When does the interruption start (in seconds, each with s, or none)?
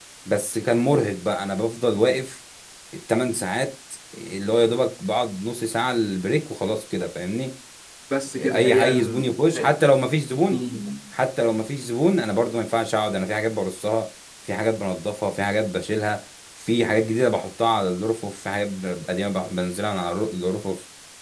8.4 s